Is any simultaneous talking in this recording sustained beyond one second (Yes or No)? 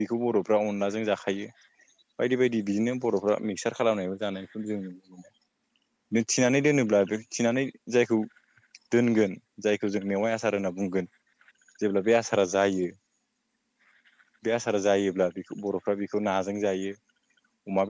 No